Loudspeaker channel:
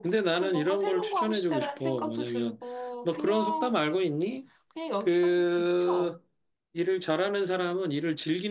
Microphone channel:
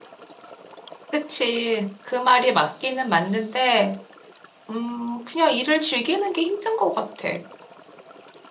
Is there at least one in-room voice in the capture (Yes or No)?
Yes